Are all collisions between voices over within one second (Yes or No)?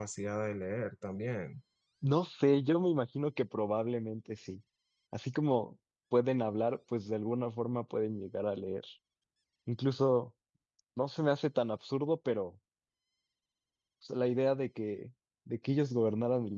Yes